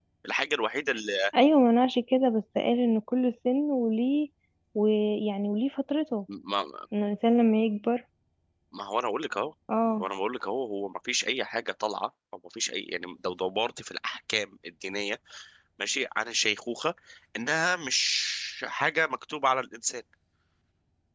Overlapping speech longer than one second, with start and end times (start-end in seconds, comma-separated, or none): none